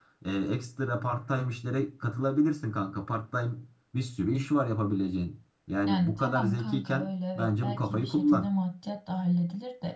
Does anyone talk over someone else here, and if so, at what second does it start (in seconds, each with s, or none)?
5.8 s